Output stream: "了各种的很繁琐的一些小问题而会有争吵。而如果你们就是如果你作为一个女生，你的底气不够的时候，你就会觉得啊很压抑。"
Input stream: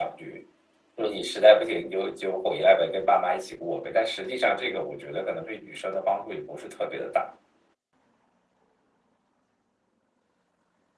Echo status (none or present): none